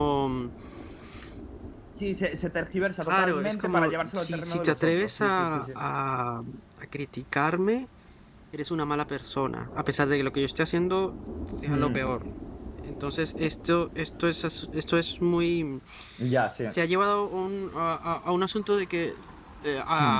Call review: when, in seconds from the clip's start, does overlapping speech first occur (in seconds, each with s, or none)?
3.0 s